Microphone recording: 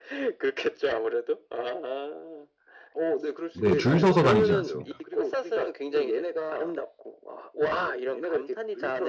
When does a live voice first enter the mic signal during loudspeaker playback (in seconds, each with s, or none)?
3.5 s